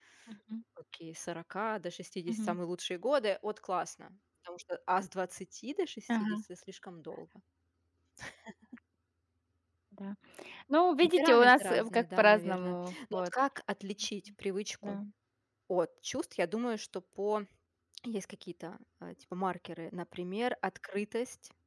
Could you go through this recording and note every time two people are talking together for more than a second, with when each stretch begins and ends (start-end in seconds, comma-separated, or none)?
11.0-13.3